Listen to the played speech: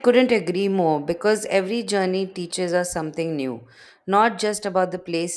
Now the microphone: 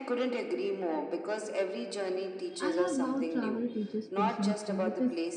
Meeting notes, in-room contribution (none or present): present